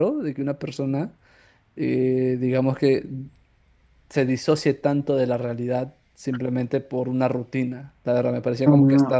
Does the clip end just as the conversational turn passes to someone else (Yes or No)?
Yes